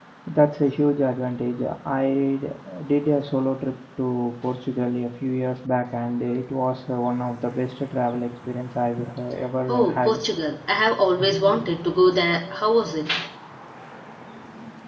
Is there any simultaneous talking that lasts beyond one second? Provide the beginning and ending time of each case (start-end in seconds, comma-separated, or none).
none